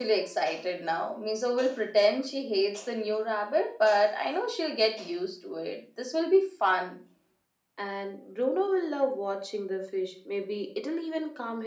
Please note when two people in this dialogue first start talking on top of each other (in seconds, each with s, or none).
none